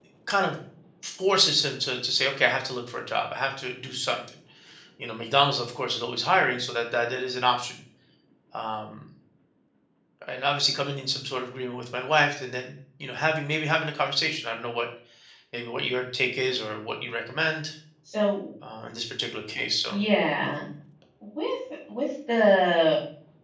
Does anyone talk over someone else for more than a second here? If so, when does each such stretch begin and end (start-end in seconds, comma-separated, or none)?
none